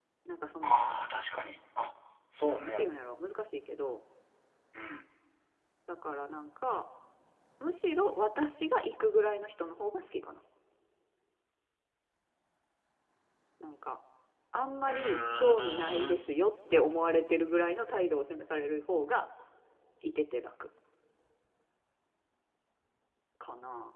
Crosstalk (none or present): present